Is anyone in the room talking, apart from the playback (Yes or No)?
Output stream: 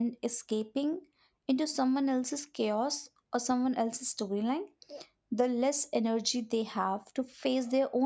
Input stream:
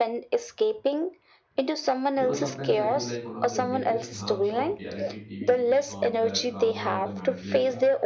Yes